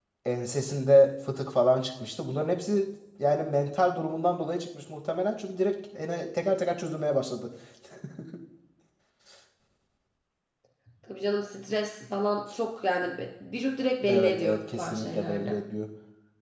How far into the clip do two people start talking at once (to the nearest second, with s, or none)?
14 s